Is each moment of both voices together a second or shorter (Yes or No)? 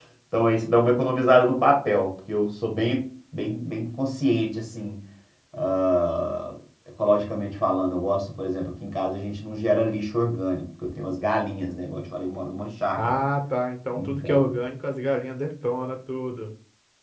Yes